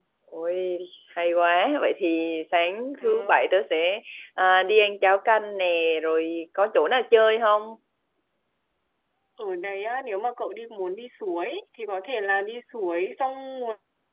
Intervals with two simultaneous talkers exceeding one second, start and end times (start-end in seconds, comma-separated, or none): none